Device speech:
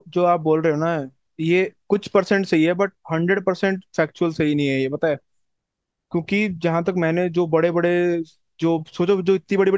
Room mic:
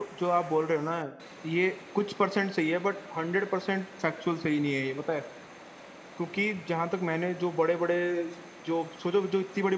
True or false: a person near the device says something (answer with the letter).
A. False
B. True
A